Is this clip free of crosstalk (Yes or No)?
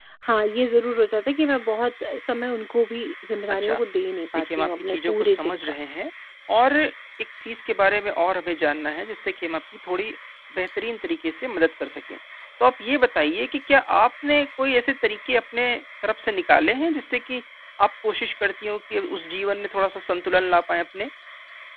No